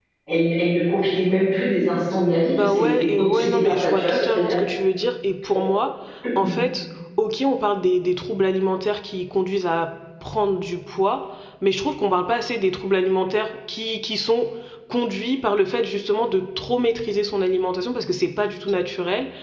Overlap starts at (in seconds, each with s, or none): 2.5 s